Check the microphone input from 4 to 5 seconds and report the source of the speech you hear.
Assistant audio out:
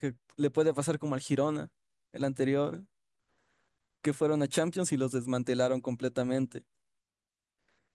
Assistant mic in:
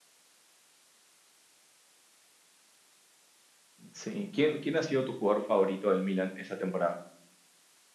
user only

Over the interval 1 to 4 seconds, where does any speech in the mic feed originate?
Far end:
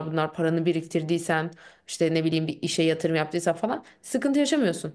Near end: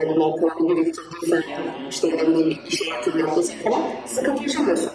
both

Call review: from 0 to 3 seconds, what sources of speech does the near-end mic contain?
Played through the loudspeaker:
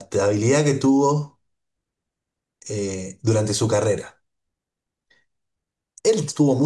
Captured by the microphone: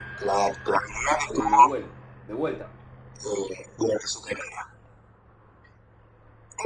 both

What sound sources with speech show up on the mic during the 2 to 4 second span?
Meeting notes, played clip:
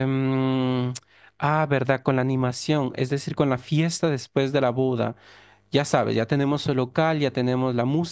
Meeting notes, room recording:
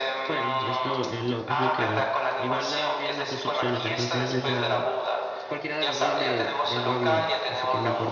both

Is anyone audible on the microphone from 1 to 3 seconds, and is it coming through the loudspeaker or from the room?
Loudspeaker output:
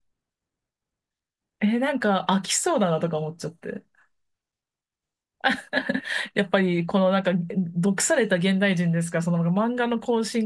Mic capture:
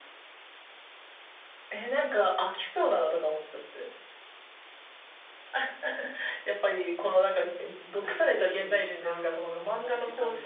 echo only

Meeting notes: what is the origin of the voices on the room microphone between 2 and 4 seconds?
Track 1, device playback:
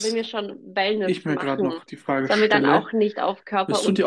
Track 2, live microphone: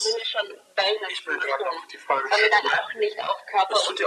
echo only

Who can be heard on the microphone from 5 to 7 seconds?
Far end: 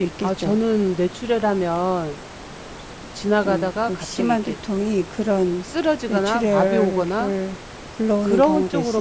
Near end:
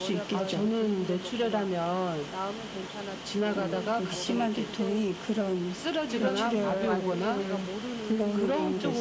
both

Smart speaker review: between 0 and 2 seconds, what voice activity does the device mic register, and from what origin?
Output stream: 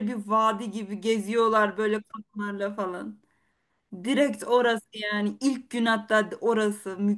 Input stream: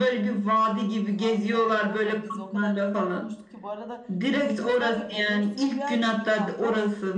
both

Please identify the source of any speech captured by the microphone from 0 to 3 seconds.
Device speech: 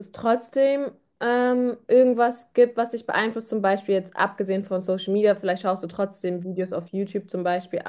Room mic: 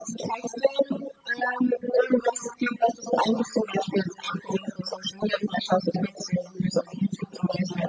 echo only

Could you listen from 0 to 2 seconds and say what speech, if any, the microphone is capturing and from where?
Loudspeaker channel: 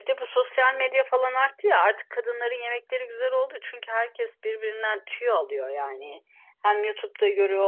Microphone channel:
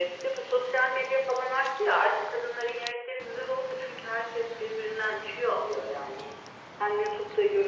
echo only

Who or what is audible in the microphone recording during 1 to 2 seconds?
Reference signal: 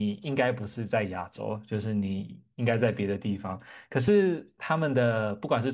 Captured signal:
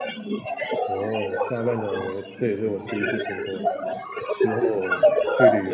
both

